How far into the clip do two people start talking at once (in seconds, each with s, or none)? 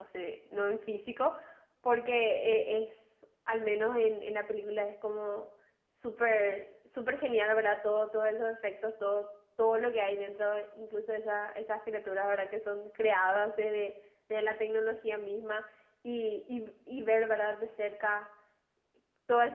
none